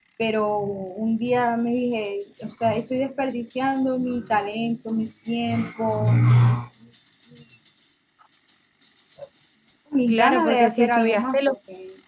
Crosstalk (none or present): present